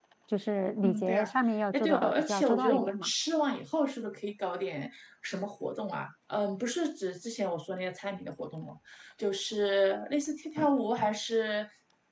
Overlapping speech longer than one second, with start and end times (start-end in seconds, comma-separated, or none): 1.7-3.1